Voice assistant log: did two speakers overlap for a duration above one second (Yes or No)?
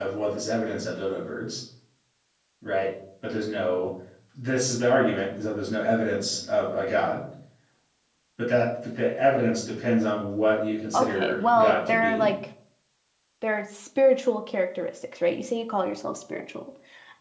Yes